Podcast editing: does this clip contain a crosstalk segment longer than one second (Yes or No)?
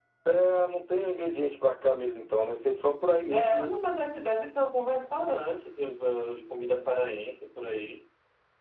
No